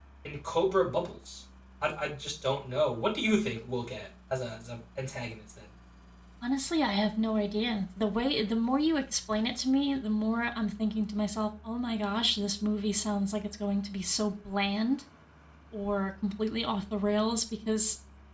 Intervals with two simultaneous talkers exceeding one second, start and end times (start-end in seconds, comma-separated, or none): none